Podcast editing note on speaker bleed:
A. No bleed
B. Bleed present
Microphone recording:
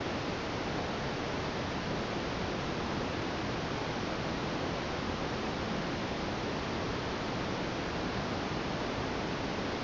A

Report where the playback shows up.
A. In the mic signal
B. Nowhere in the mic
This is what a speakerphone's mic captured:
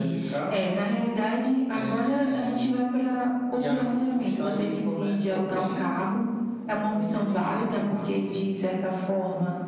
A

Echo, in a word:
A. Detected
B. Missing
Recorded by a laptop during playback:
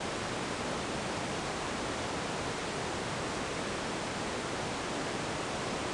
B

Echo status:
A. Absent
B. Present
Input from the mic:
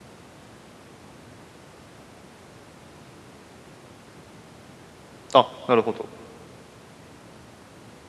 A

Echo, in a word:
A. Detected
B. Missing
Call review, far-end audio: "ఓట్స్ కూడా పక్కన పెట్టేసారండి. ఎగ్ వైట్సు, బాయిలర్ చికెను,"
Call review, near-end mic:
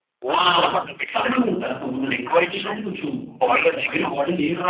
A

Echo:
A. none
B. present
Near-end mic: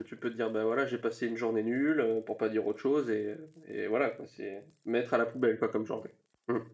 A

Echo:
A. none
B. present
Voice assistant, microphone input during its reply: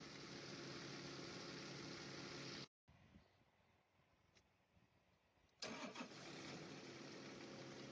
A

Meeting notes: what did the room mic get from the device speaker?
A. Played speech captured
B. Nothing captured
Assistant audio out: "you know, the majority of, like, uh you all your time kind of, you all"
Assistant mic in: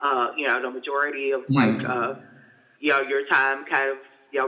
A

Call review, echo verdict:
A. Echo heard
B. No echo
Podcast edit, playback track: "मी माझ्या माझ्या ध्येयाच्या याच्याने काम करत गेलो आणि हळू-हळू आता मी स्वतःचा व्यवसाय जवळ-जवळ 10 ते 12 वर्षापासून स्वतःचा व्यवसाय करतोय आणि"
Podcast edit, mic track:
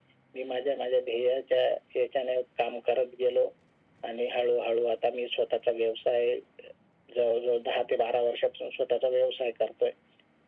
A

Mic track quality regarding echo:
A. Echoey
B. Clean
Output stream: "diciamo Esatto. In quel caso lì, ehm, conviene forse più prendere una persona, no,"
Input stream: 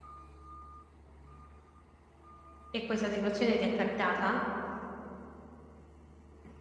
B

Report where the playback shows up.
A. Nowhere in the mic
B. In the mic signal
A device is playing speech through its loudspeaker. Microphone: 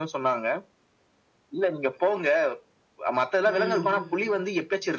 B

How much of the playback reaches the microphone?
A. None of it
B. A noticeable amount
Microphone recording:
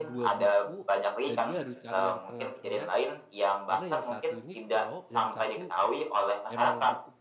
B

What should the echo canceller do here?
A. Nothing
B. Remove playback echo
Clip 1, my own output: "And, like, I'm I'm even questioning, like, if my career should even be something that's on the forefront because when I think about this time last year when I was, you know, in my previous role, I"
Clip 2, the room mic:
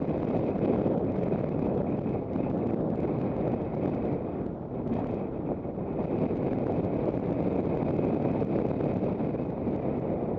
A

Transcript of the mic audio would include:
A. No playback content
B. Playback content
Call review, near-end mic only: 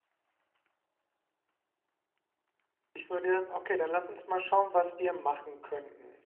A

